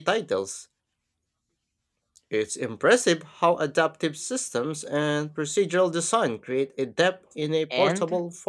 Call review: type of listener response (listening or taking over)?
taking over